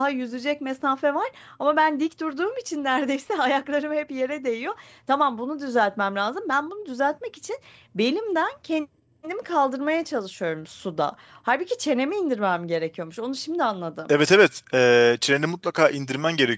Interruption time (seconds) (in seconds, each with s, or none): none